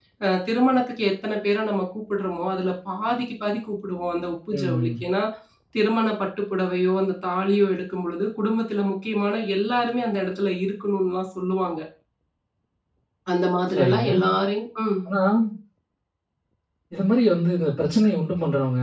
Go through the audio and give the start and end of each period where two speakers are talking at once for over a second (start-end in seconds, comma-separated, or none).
none